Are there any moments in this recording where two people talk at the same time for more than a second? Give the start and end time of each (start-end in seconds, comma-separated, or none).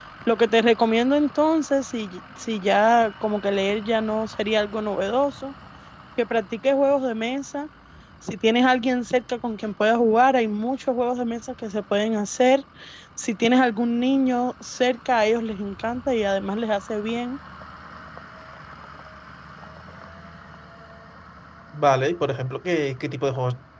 none